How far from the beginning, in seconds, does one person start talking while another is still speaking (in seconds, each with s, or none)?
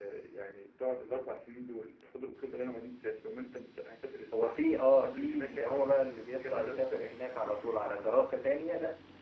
4.3 s